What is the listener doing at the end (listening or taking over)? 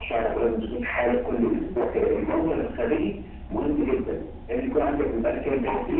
taking over